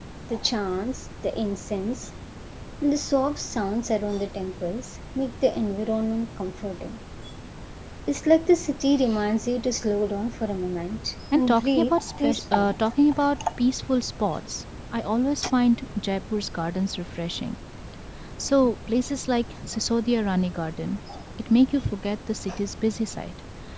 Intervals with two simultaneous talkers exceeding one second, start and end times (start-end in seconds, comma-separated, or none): 11.3-12.8